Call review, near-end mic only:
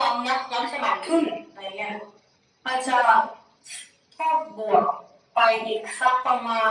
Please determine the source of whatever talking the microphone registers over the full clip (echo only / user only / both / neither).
echo only